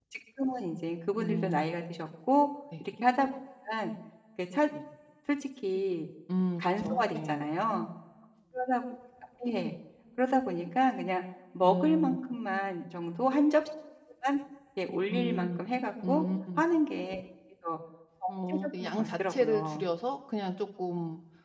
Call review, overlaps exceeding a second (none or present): present